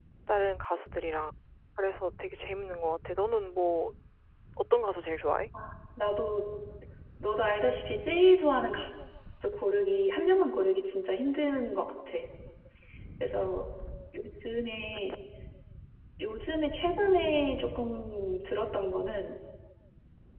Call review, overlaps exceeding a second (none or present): none